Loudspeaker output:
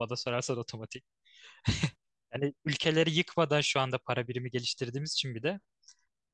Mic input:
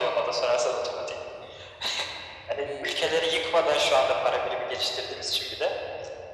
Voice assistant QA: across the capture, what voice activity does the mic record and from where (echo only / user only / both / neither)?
both